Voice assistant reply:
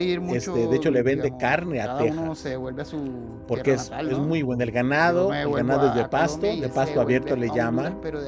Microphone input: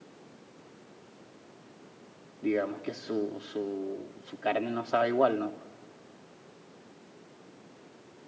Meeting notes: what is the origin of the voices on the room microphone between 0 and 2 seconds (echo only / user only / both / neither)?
neither